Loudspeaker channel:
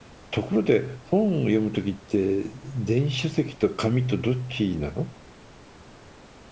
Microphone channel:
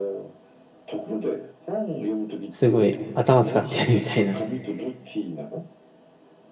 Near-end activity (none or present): present